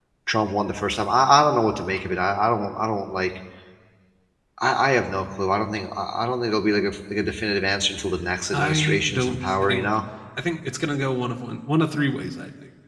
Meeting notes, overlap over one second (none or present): present